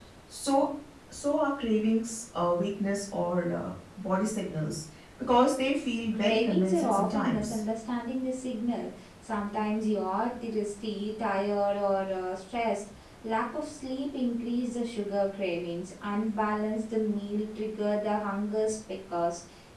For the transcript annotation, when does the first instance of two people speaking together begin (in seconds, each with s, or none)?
6.1 s